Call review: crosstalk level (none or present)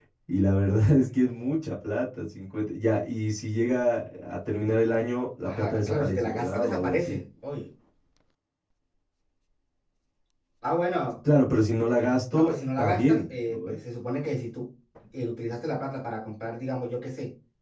present